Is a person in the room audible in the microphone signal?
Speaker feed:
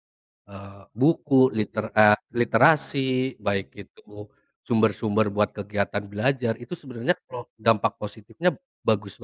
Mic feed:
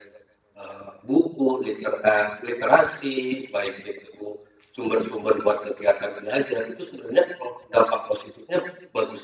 No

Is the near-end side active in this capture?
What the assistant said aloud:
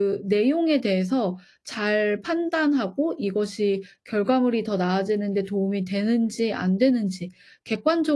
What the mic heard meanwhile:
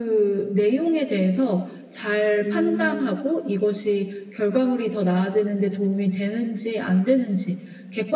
Yes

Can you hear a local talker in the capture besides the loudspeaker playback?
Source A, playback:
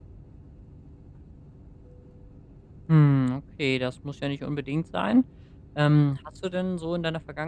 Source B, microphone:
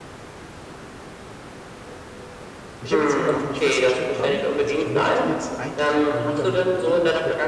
Yes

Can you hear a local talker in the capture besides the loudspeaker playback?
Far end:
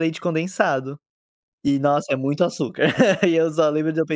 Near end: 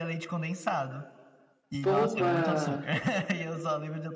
Yes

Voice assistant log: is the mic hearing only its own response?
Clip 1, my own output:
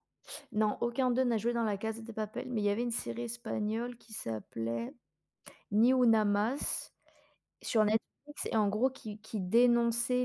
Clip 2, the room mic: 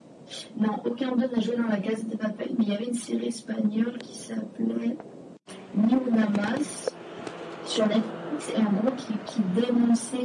Yes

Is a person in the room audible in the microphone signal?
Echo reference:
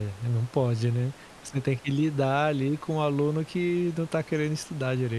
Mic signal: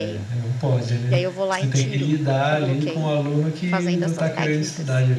Yes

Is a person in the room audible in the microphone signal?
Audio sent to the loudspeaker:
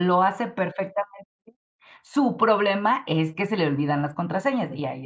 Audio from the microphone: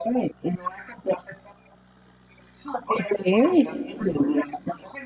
Yes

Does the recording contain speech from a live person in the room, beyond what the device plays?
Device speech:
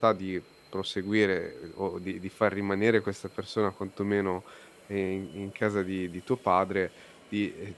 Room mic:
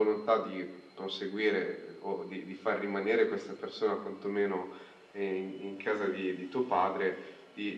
No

